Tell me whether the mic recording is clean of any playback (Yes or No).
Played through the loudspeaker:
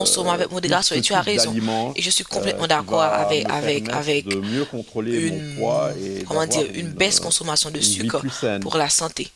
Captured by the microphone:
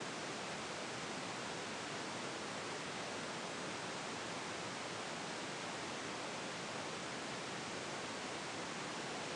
Yes